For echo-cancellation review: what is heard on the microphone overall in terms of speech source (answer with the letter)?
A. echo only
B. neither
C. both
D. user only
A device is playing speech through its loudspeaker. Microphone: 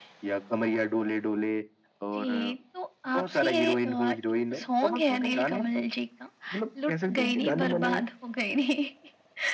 A